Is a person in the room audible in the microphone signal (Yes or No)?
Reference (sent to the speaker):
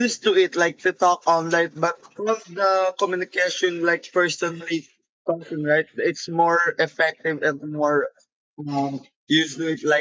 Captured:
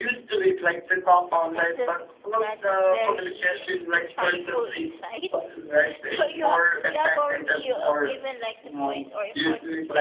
Yes